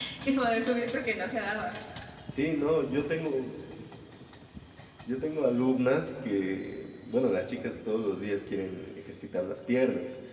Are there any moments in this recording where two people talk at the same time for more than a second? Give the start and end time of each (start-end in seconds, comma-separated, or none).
none